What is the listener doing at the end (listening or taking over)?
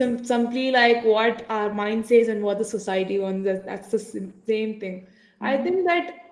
listening